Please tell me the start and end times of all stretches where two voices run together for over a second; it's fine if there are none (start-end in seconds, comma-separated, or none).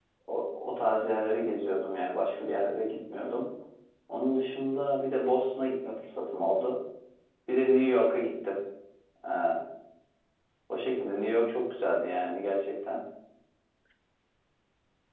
none